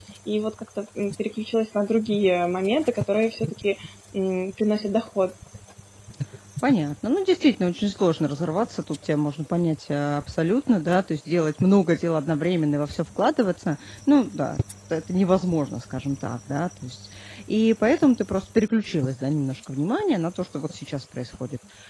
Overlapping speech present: No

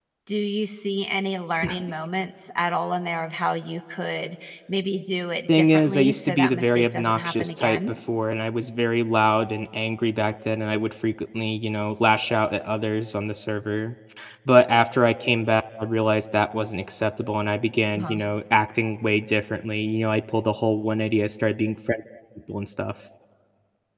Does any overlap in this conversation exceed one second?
Yes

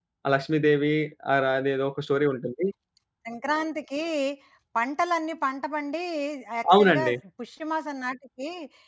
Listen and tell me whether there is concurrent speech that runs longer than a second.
No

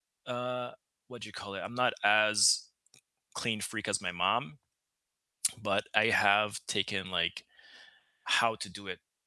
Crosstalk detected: No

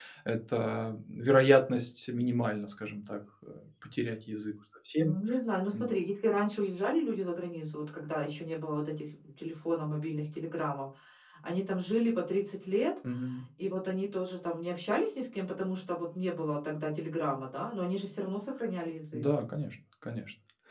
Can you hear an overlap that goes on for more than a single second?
No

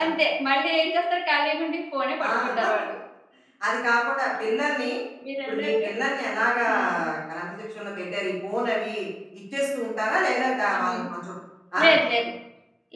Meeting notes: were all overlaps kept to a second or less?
Yes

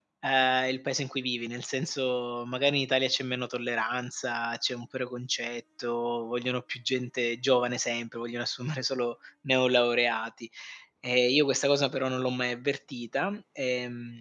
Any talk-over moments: No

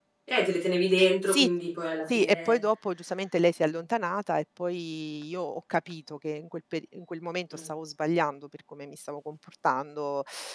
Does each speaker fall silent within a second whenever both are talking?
Yes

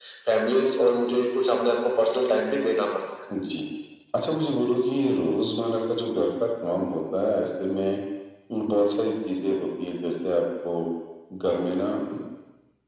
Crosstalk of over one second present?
No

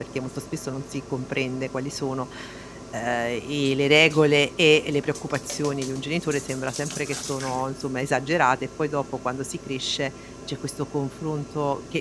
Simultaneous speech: No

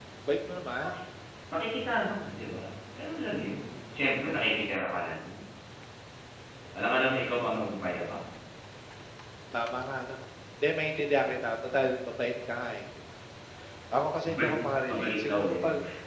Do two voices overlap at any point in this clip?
Yes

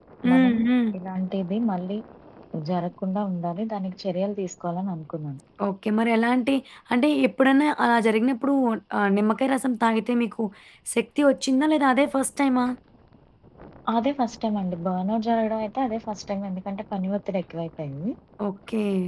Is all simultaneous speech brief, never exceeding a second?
Yes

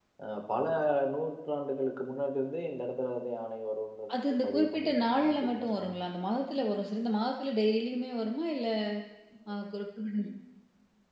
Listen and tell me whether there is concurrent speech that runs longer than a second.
Yes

